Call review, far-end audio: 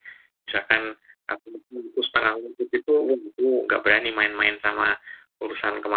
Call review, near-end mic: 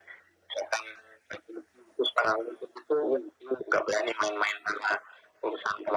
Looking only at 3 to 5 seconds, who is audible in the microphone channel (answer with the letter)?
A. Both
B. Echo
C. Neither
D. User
B